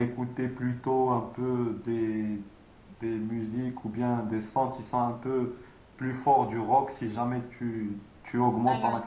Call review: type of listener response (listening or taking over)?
listening